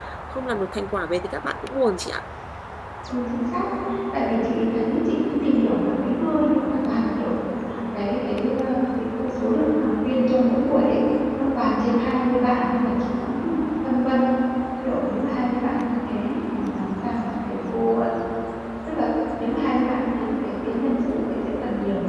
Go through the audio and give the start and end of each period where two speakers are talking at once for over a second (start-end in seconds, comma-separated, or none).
none